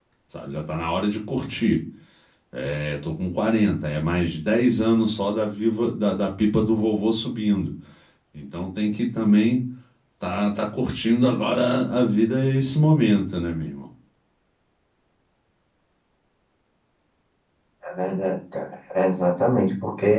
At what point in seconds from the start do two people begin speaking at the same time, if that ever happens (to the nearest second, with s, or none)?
none